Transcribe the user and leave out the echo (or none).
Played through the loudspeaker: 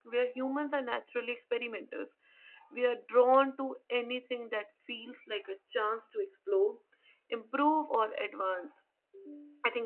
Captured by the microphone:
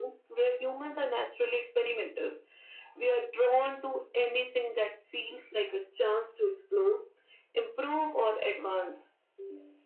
none